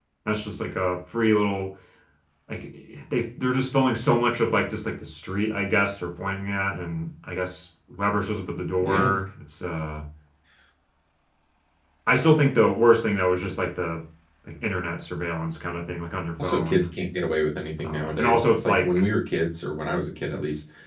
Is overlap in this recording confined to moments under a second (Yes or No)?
No